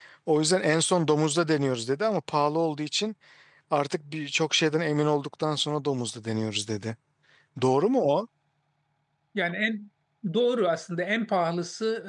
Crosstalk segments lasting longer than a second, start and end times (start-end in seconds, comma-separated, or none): none